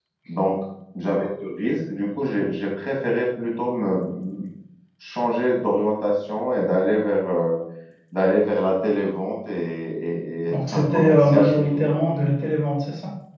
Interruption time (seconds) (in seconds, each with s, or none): 10.5 s